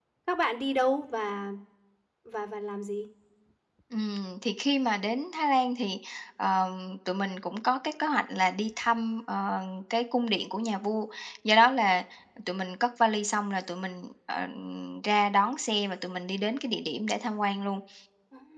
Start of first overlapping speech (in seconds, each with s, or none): none